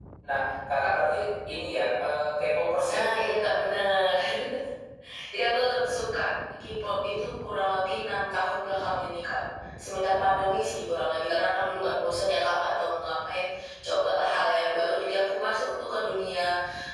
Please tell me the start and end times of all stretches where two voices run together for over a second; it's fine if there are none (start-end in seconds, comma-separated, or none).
none